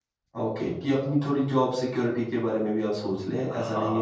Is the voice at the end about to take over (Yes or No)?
Yes